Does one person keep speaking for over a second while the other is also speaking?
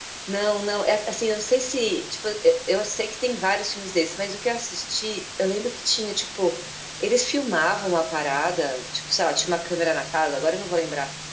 No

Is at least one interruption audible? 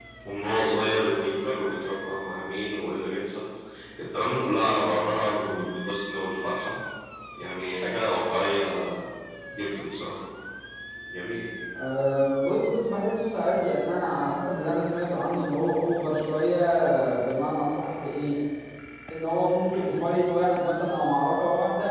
No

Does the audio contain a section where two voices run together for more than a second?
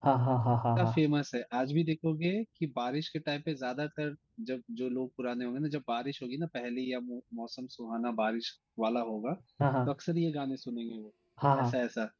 No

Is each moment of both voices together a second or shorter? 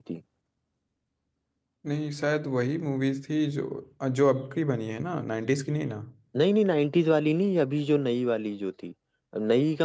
Yes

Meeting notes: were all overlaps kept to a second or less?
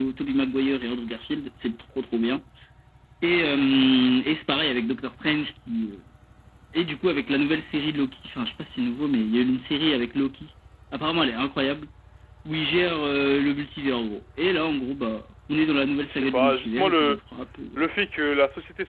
No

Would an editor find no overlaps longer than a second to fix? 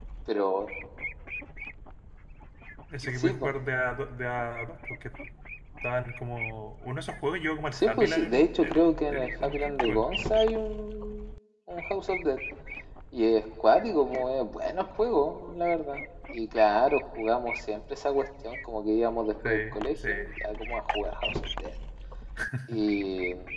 No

